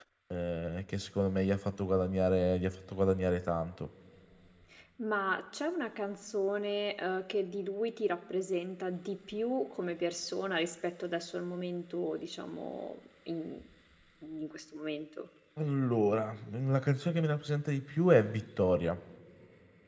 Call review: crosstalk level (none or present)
none